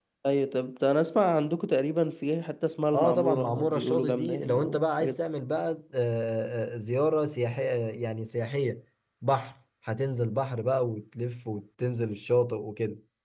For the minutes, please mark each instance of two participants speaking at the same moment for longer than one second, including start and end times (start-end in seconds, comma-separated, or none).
2.9-5.2